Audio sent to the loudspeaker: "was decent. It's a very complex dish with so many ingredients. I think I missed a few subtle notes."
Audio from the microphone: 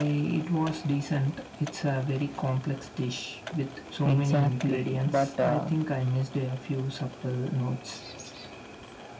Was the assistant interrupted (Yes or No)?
Yes